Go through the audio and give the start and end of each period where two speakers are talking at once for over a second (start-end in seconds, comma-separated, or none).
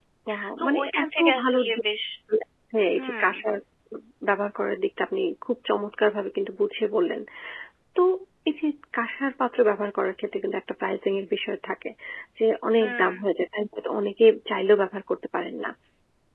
0.6-1.8